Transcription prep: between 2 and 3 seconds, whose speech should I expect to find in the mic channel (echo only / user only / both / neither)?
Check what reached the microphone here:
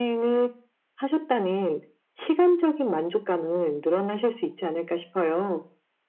echo only